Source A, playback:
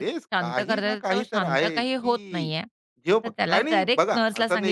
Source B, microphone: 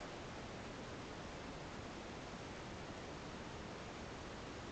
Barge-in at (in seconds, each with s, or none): none